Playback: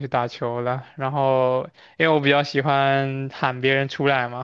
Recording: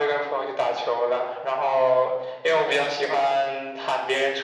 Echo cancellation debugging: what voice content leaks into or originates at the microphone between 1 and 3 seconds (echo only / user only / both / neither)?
echo only